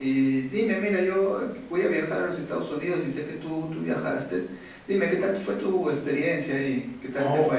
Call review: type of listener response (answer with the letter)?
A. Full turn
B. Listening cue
A